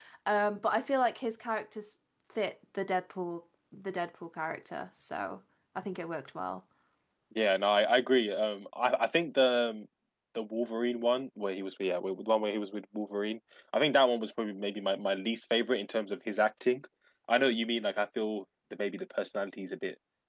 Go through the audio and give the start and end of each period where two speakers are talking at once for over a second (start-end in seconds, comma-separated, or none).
none